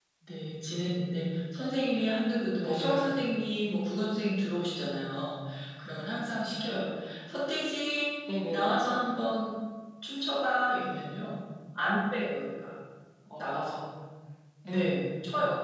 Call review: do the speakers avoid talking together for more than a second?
Yes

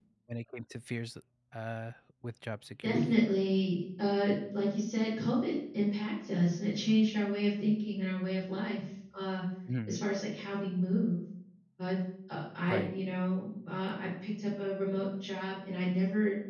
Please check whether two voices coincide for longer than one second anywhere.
No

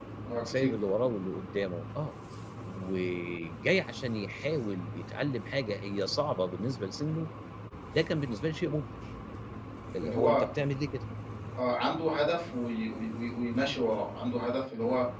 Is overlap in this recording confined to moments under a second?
Yes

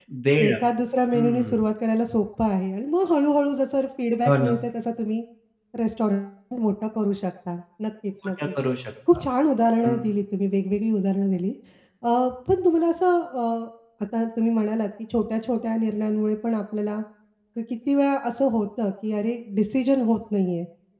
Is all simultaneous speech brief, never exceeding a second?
Yes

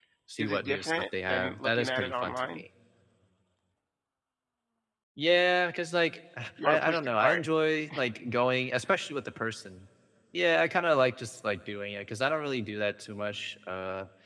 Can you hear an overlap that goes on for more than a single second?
Yes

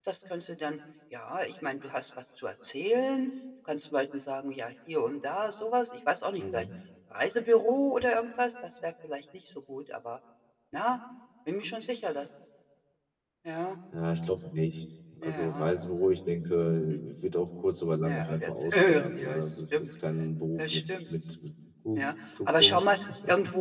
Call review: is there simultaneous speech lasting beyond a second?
Yes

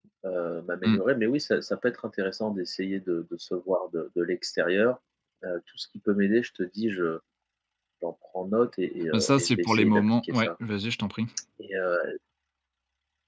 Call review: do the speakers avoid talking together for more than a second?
No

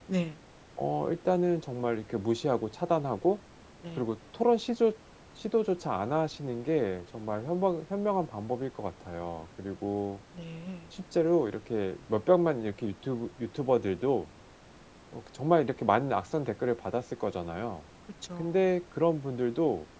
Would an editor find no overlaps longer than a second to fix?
Yes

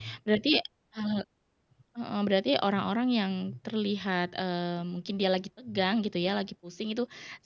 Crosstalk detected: No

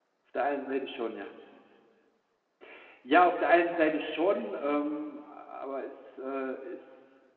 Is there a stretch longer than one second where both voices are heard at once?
No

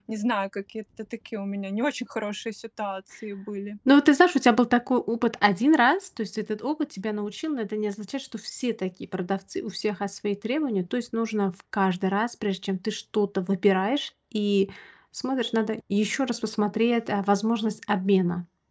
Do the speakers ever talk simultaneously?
No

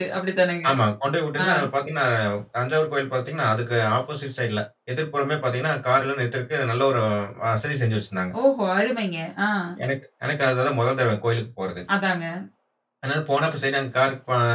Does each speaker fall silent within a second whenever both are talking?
Yes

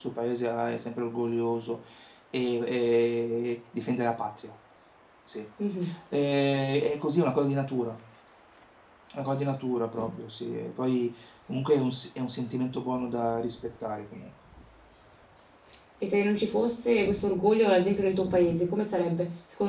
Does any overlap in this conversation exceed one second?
No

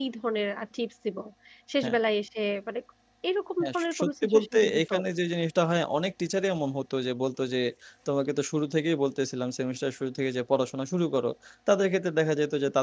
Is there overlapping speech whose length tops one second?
Yes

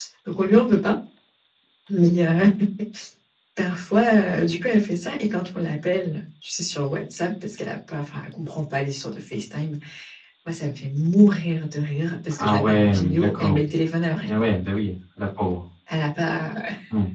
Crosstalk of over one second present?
Yes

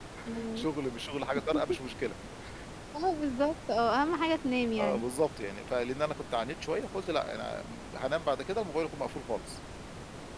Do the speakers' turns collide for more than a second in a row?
No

